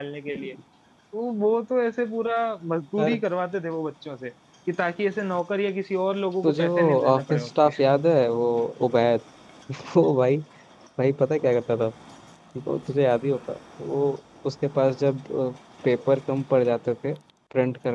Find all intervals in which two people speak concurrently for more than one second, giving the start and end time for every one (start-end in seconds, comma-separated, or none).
6.4-7.7